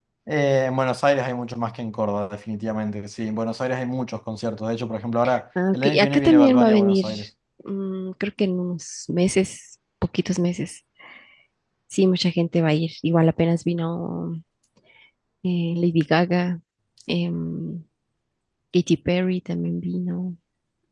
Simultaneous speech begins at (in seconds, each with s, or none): 5.7 s